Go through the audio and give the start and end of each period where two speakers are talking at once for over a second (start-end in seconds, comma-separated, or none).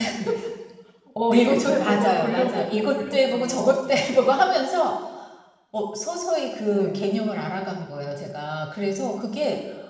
1.4-3.8